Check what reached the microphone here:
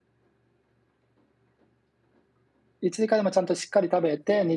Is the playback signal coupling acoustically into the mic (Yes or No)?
No